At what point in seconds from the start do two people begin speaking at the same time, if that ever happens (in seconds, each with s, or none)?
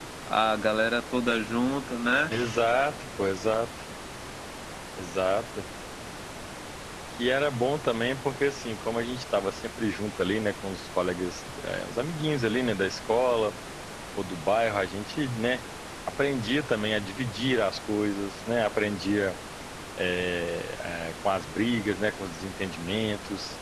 none